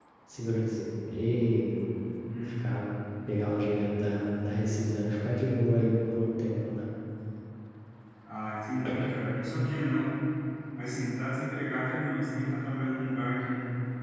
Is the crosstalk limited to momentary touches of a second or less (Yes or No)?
Yes